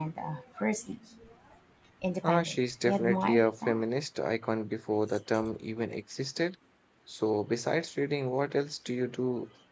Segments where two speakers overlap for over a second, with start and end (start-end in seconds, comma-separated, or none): 2.2-3.8